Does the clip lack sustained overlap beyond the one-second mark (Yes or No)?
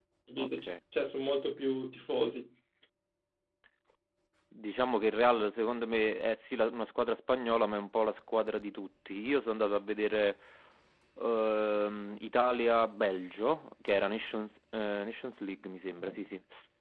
Yes